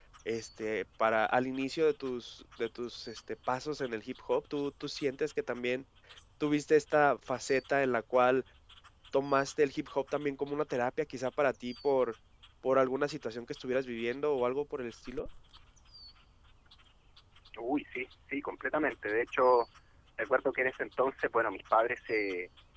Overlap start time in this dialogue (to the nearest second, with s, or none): none